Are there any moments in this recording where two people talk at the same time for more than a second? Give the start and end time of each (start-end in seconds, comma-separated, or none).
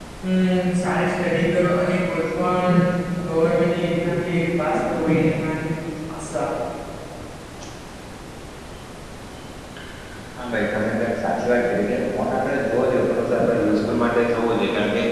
none